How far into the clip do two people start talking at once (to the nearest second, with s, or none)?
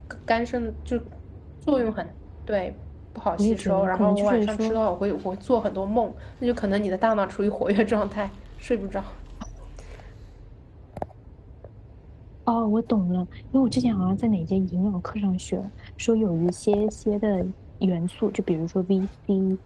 3 s